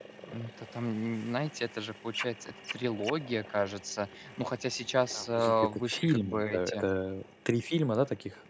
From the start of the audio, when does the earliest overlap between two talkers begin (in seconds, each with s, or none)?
5.1 s